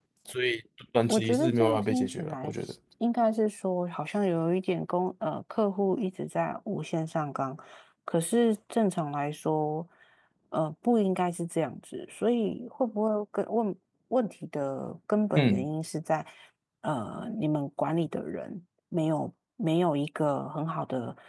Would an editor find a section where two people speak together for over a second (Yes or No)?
Yes